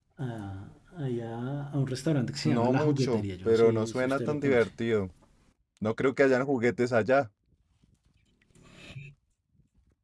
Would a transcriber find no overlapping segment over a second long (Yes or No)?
No